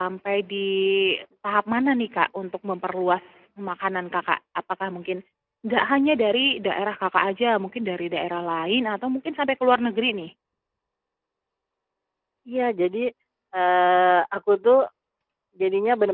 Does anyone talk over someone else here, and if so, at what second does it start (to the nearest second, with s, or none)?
none